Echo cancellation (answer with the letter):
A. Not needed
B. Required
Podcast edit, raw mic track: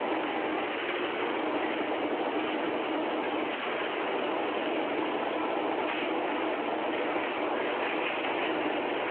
A